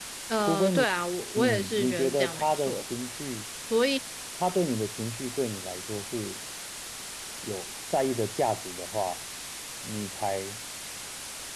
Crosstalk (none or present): present